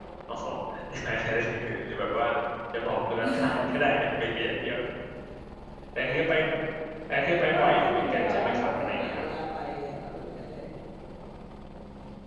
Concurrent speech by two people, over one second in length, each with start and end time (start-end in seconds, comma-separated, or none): 7.5-9.2